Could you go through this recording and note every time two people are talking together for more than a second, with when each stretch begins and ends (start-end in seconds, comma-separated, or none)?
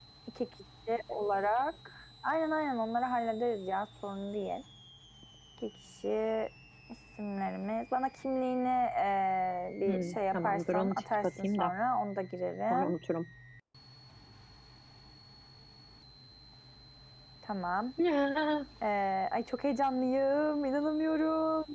9.9-11.7